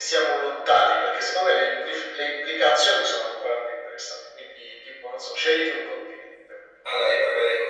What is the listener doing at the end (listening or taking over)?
taking over